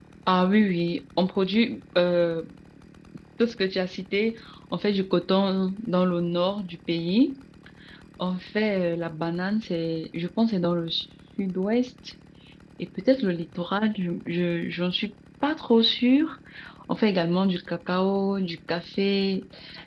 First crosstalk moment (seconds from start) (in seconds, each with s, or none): none